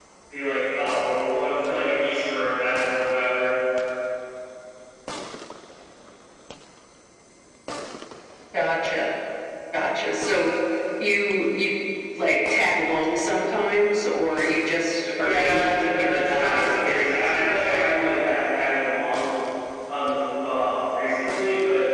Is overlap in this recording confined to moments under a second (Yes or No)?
No